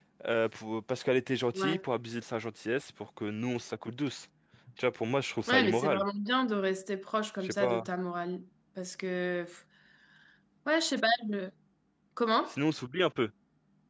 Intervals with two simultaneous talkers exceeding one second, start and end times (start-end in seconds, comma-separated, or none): none